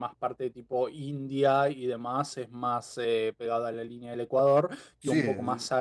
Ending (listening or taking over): listening